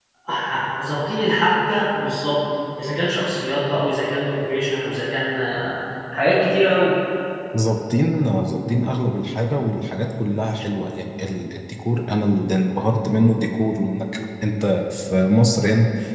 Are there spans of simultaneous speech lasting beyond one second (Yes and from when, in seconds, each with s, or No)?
No